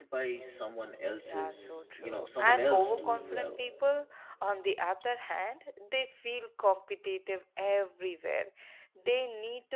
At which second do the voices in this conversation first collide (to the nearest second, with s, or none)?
1 s